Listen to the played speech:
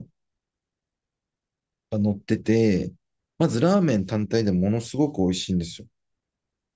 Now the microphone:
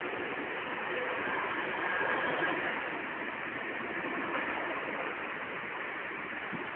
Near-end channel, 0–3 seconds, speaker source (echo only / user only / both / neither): neither